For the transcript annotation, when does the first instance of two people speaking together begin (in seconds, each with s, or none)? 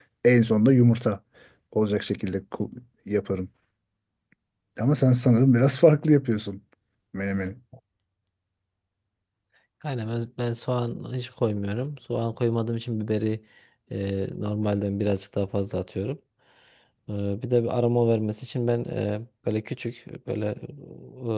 none